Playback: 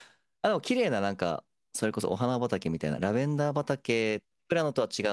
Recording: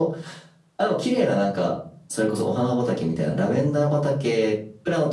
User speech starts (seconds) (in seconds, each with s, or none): none